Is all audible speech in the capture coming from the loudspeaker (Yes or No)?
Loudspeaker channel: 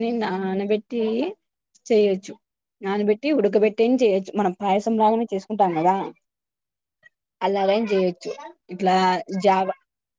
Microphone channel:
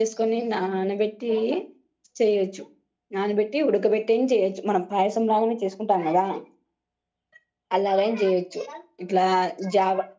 Yes